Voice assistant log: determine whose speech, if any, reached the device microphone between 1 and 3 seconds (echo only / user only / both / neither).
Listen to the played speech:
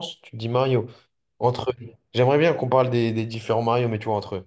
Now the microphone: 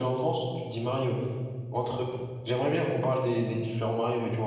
echo only